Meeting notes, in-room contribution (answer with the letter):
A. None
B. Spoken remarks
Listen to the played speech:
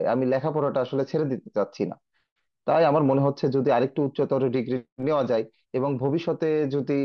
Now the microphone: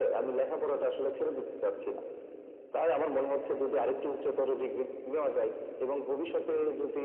A